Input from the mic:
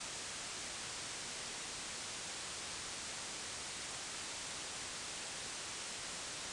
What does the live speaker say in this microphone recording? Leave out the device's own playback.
none

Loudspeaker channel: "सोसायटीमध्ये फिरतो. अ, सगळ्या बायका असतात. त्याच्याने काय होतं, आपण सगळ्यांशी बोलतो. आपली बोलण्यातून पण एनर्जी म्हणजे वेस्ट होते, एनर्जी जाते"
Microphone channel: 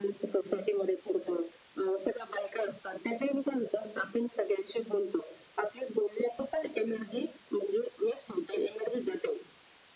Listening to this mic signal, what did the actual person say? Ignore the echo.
none

